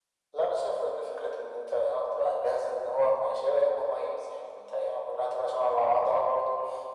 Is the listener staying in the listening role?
Yes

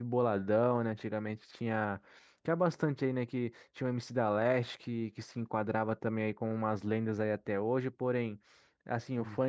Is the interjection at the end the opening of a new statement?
No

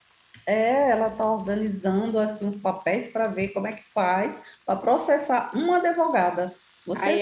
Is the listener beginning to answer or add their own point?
Yes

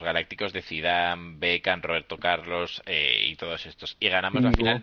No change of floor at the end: Yes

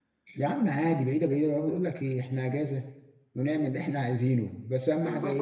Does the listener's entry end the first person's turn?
Yes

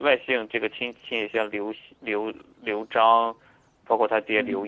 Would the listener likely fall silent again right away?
Yes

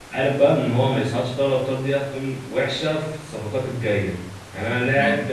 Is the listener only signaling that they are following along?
Yes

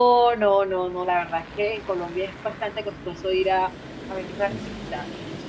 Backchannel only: Yes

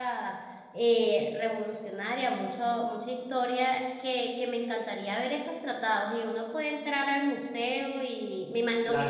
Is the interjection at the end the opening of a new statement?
No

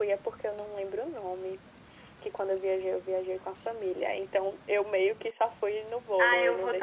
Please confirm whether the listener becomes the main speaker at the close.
Yes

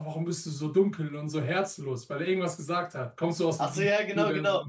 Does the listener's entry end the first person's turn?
Yes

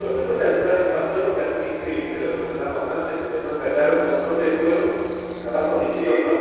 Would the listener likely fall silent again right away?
Yes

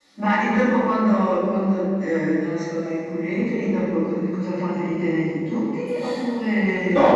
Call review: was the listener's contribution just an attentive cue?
No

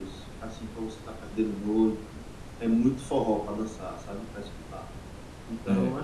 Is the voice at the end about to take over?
No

